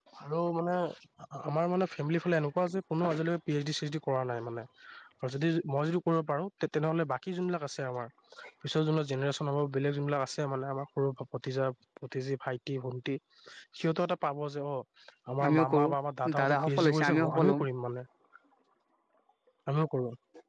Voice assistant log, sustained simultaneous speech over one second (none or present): present